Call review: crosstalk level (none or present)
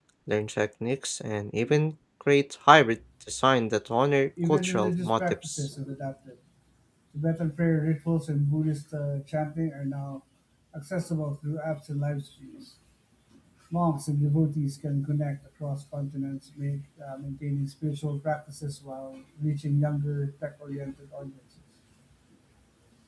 present